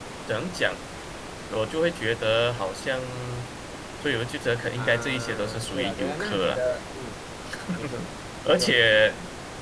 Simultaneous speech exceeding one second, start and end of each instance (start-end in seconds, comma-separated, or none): 4.8-6.6